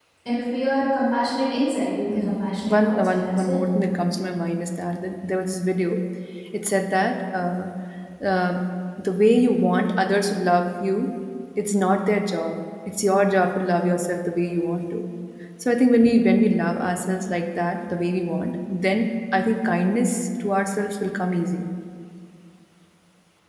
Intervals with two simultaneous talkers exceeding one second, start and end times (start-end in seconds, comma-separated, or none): 2.1-3.6